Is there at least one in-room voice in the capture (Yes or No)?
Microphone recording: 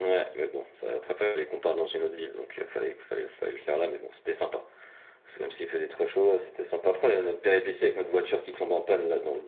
No